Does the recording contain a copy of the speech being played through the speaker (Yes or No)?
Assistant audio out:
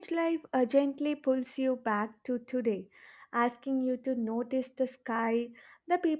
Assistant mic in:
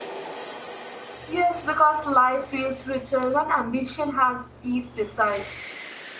No